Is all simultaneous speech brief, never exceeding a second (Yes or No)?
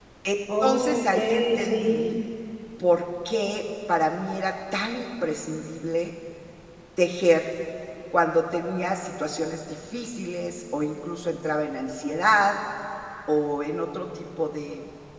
No